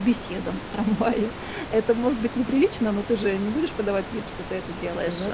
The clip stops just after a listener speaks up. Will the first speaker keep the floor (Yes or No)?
Yes